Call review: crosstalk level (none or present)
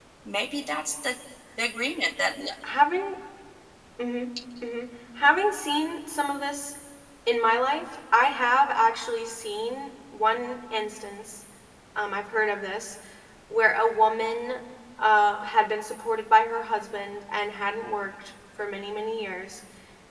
none